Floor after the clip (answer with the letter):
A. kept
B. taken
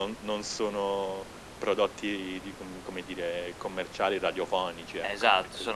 B